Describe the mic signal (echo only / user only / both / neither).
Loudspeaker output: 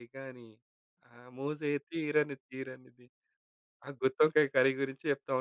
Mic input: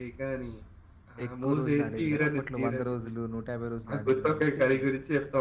both